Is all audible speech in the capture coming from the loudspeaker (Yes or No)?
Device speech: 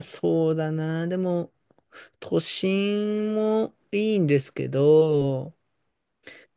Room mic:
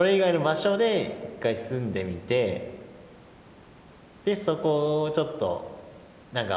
No